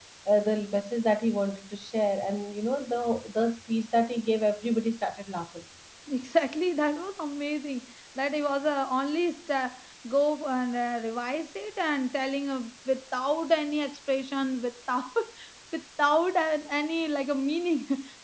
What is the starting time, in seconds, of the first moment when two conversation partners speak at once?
none

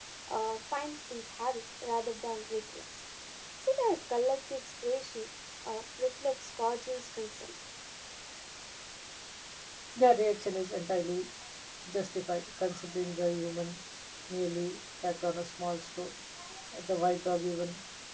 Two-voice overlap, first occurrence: none

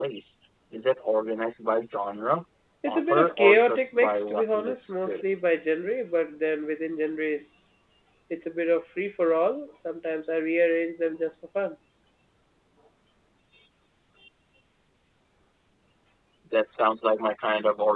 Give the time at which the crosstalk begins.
2.9 s

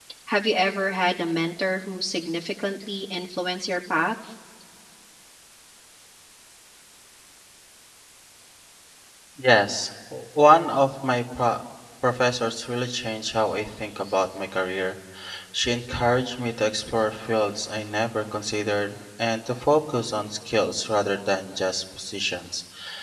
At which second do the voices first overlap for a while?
none

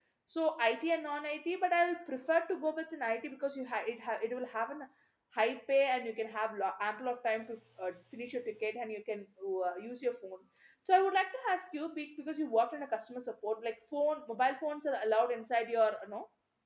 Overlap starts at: none

